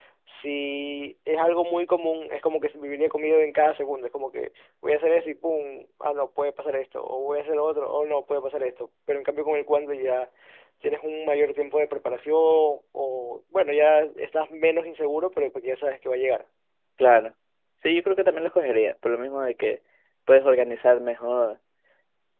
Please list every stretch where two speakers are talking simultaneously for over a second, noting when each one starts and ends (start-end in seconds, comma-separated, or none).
none